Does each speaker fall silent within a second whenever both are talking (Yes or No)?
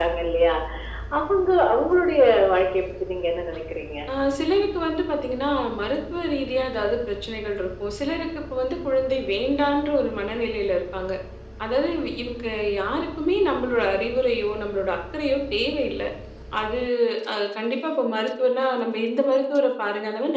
Yes